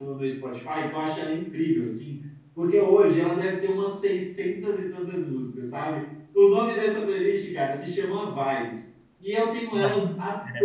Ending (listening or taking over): listening